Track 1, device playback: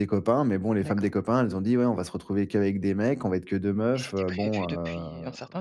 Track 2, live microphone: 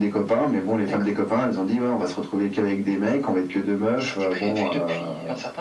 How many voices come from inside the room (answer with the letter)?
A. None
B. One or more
A